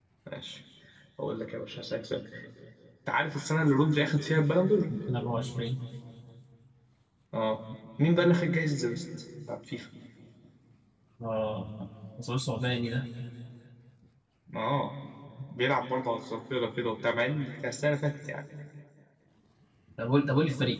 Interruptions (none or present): none